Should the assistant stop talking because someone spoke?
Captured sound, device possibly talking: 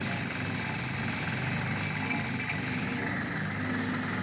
No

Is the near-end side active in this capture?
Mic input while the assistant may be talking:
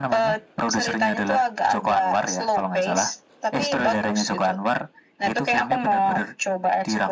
No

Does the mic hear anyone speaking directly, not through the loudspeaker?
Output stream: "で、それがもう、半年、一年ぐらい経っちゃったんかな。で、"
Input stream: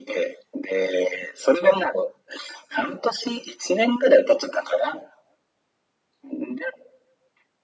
No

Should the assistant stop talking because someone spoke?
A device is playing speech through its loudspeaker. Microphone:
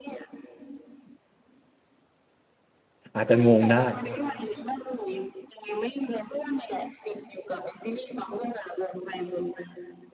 Yes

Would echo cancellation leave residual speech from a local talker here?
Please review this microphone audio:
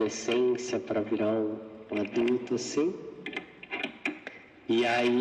No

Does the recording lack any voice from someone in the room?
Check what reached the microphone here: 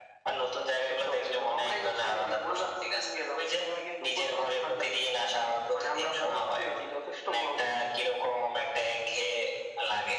Yes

